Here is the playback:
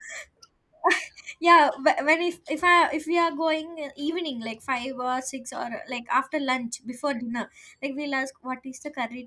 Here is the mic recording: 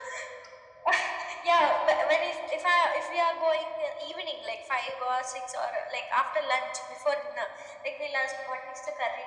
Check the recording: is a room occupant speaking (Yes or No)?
No